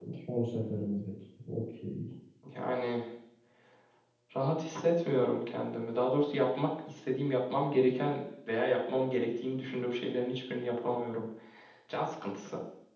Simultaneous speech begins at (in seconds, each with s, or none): none